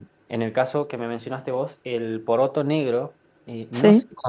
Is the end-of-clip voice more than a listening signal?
No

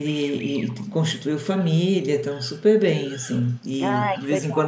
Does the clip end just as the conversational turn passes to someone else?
No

